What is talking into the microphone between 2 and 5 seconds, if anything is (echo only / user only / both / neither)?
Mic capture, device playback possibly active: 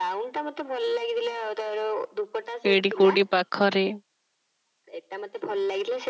both